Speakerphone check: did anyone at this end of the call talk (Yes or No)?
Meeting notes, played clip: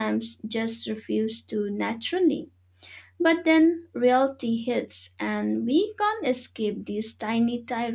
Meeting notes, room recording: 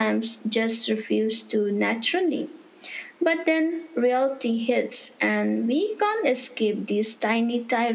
No